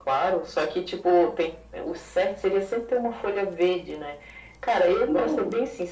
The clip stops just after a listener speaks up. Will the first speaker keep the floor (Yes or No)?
Yes